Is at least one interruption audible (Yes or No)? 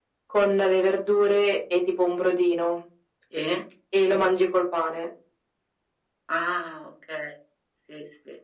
No